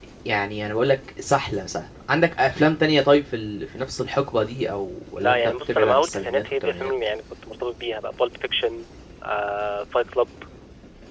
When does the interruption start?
5.2 s

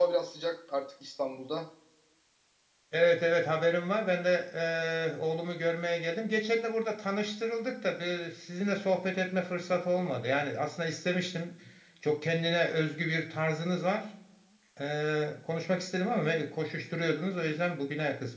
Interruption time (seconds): none

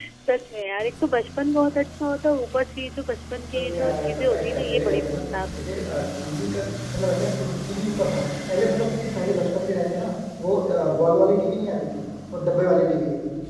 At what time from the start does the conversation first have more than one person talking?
3.5 s

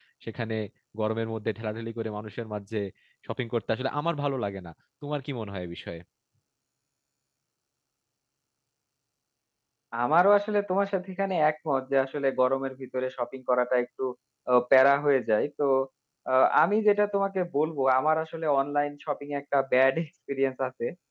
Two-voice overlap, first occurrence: none

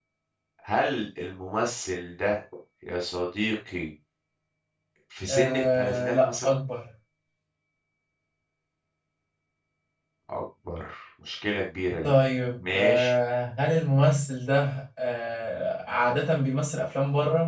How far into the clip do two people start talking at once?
5.3 s

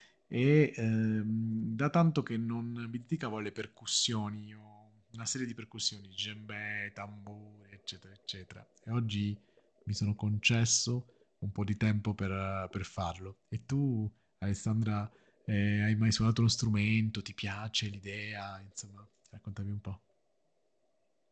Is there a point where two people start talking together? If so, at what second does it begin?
none

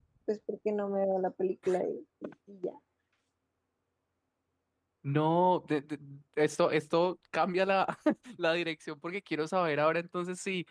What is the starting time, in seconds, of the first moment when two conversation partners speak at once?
none

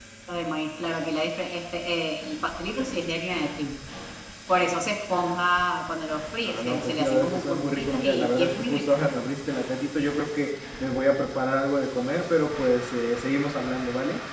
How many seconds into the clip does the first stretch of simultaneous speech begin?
6.4 s

